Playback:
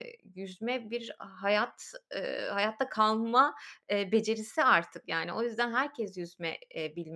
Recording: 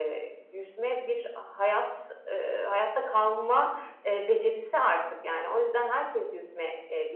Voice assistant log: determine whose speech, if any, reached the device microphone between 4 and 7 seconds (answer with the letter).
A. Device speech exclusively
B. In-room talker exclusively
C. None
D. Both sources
A